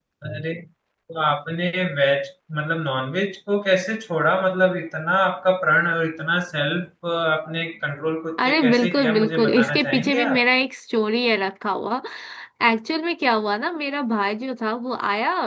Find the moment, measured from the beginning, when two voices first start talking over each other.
8.4 s

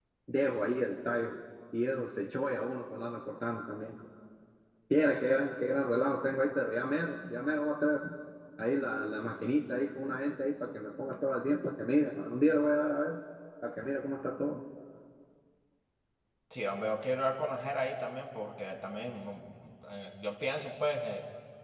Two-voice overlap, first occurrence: none

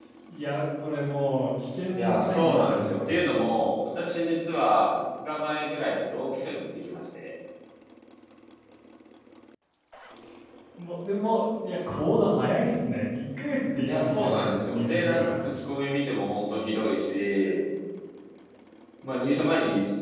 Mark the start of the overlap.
2.0 s

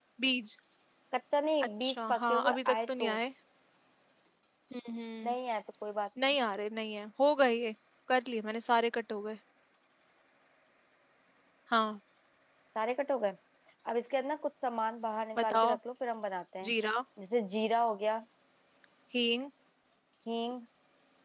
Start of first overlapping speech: 1.8 s

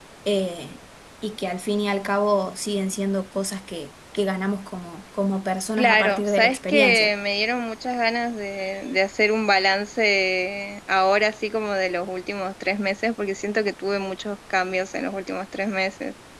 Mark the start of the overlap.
5.8 s

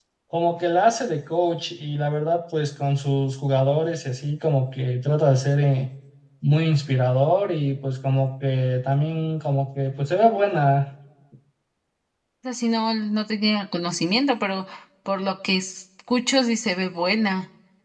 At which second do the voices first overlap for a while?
none

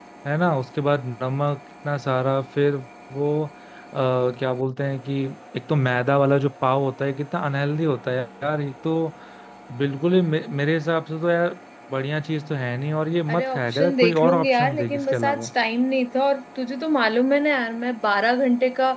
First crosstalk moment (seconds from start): 13.3 s

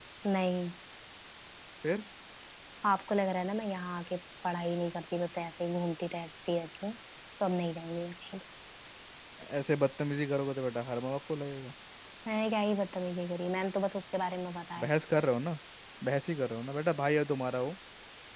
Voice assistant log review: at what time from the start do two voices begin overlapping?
none

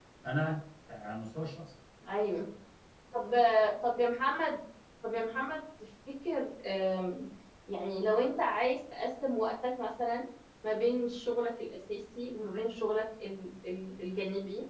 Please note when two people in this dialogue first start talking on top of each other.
none

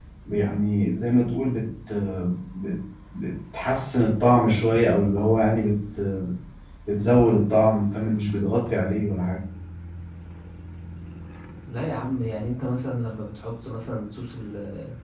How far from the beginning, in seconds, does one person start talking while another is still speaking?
none

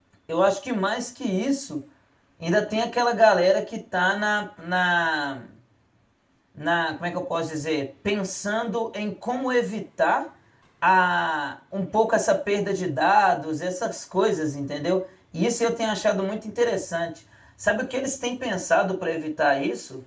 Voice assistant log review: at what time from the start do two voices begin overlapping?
none

